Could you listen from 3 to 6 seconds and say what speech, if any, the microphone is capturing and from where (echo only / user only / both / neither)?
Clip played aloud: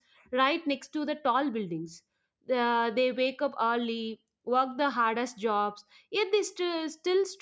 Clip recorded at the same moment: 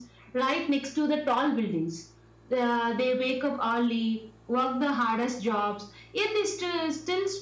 echo only